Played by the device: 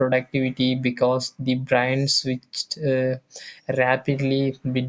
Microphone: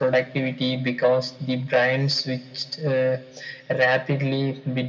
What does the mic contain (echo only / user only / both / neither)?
echo only